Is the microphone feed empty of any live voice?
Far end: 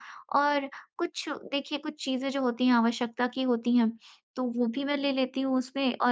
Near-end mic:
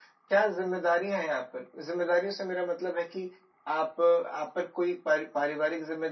No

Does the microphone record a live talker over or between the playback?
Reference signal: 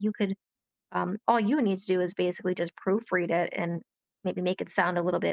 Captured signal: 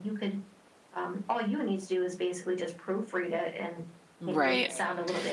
Yes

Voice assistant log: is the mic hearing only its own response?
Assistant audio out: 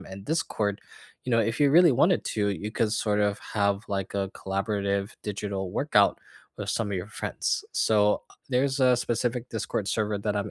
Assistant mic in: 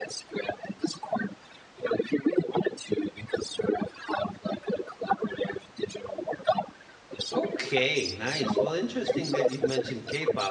No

